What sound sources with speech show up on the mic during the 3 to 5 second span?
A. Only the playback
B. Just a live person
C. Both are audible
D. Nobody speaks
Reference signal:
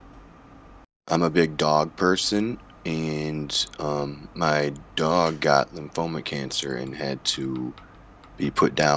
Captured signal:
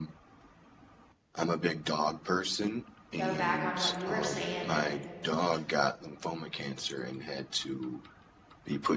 C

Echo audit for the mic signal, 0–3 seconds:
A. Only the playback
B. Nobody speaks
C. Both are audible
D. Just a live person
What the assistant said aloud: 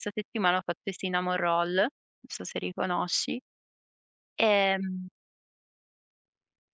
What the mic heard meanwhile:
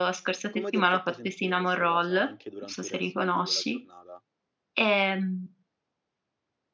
C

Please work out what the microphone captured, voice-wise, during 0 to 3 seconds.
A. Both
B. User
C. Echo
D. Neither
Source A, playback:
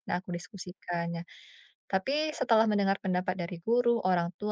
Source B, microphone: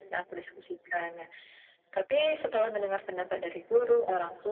C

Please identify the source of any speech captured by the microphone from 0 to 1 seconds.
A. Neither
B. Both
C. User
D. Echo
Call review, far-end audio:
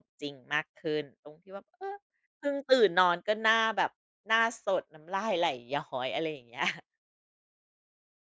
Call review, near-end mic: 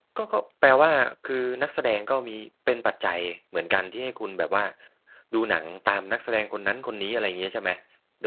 C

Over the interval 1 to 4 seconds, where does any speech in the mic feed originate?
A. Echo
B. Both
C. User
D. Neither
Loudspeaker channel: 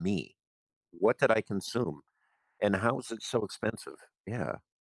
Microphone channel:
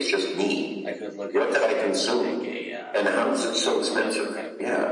B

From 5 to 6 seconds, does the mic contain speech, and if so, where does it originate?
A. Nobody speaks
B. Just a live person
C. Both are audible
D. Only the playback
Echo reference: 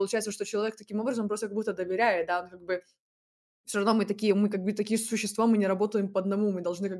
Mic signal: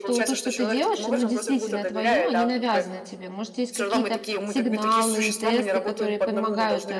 C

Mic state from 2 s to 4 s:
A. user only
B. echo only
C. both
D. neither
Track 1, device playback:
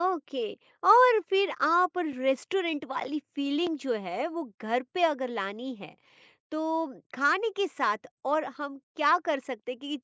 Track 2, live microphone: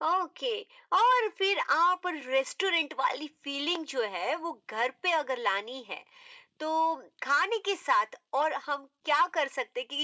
B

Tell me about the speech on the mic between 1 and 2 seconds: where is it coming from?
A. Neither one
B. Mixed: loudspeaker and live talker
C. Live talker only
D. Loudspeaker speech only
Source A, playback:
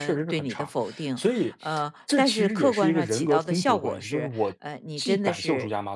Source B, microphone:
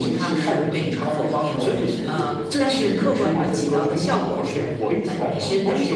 B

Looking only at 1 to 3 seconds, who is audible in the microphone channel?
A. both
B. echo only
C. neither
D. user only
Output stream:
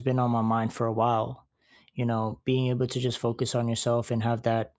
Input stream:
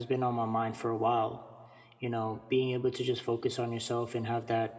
B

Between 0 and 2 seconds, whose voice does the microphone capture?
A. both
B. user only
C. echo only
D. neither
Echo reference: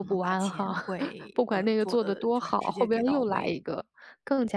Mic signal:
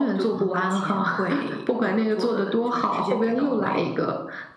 C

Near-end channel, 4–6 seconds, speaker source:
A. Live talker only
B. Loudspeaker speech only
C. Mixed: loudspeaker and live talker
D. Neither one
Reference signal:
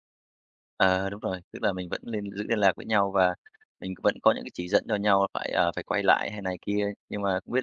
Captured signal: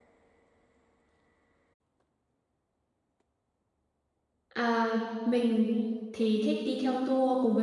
A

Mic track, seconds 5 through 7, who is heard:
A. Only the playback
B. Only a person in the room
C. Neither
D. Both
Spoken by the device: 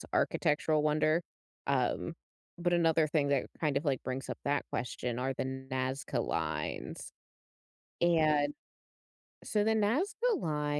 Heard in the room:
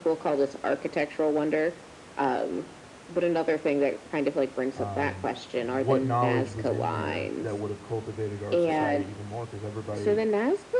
D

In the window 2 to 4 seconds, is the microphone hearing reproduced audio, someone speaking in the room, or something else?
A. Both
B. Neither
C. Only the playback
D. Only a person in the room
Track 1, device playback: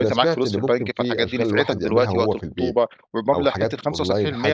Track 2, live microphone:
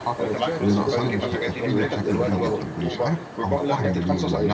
A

